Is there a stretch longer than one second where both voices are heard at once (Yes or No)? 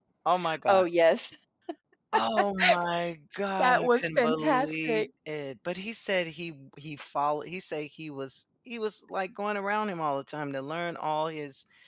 Yes